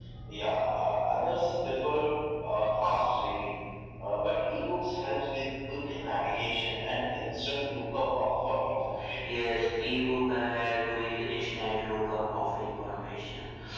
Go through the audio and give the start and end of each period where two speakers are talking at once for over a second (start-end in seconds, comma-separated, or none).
none